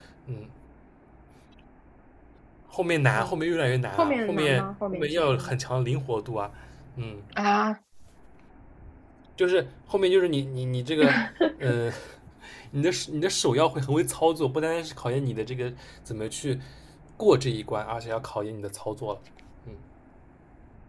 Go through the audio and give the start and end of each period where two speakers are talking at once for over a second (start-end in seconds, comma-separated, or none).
4.0-5.5